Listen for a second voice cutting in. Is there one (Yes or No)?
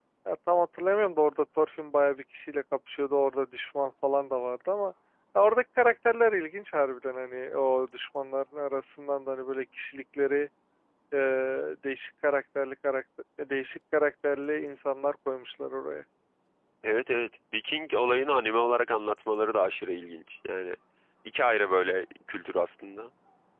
No